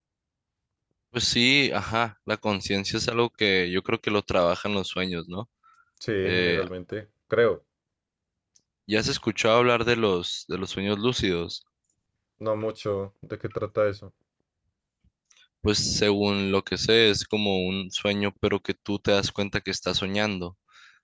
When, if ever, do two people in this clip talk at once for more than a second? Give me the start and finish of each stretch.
none

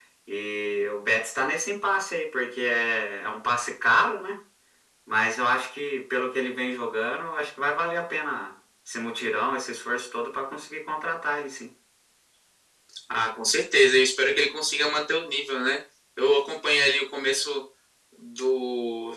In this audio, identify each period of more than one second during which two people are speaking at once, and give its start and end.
none

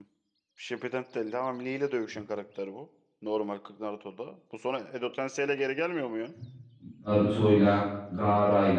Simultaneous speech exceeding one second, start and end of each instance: none

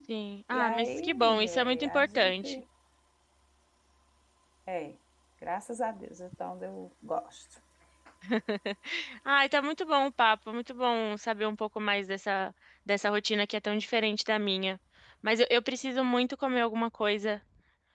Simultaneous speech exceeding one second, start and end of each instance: 0.5-2.6

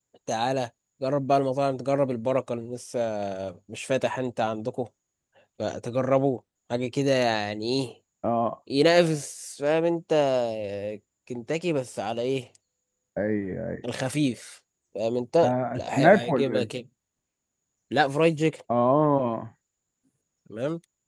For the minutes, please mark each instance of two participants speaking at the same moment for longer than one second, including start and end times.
15.4-16.7

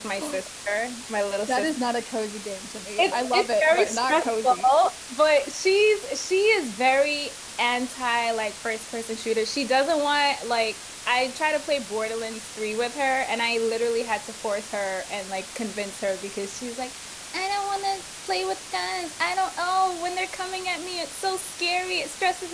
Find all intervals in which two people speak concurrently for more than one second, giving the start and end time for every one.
3.0-4.6

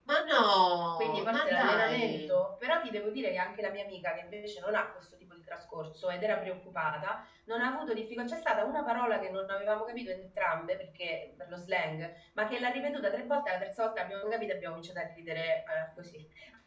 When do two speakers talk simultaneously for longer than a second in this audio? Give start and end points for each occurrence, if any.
1.0-2.3

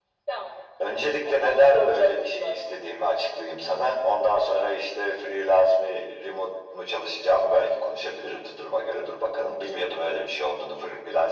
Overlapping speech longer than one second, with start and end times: 1.2-2.7

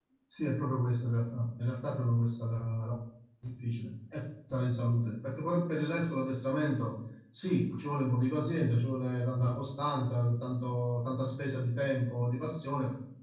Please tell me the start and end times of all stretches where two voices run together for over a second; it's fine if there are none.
none

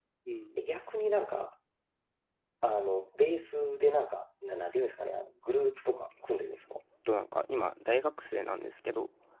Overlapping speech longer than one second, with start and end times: none

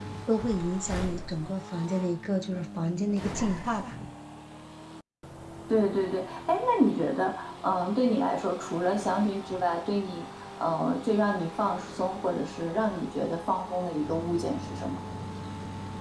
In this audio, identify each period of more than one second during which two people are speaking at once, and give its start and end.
none

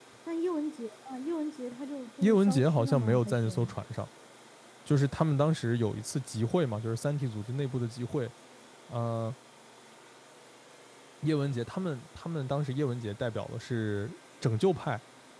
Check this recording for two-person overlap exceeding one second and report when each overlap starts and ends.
2.2-3.7

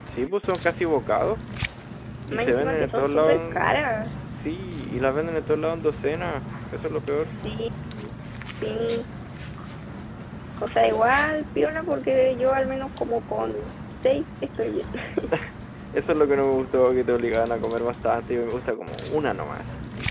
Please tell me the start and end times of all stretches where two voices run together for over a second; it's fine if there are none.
2.3-3.8

